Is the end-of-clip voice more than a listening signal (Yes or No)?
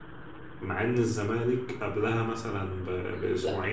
Yes